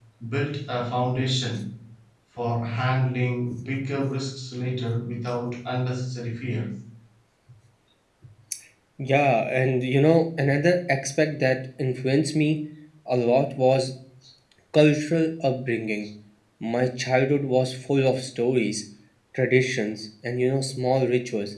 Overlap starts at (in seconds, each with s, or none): none